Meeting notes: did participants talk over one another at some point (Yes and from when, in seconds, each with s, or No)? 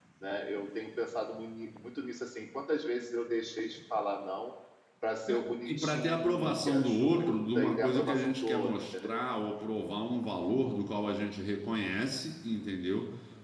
Yes, from 5.7 s